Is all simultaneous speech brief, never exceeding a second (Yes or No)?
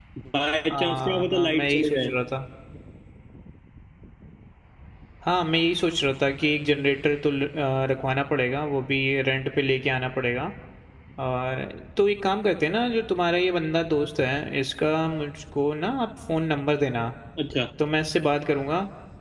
No